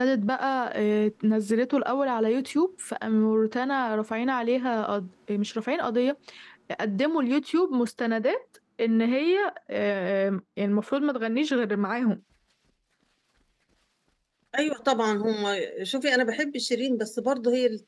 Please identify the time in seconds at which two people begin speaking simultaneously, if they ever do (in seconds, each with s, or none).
none